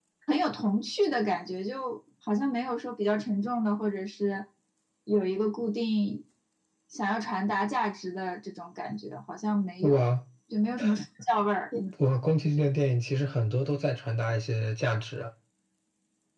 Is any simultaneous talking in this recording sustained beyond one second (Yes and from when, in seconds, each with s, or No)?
No